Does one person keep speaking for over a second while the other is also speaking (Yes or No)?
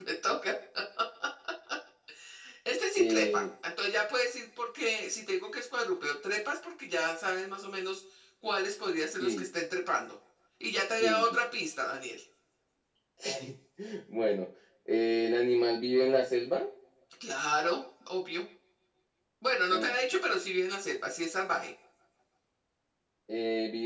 No